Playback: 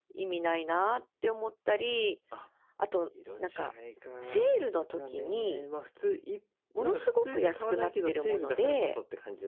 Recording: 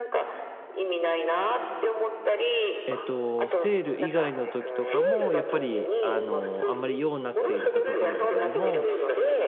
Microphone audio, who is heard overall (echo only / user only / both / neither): both